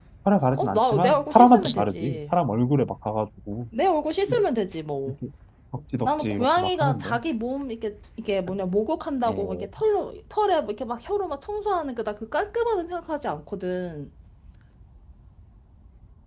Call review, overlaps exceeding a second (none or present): present